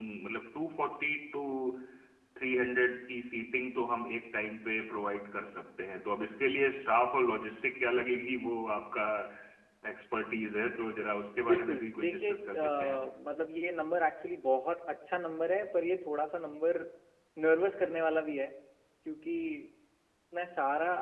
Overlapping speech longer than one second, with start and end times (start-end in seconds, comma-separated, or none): 11.4-13.1